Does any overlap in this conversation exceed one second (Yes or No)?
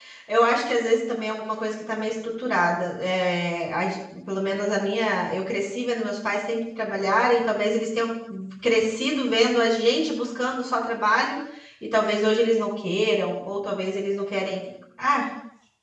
No